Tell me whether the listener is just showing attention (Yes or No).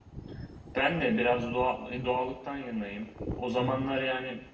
Yes